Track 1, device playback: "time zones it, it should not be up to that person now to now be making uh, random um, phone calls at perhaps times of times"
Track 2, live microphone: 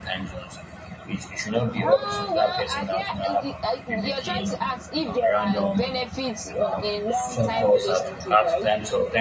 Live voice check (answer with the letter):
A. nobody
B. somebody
B